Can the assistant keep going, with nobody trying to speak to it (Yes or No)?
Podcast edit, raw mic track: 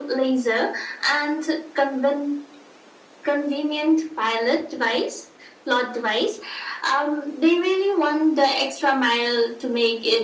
Yes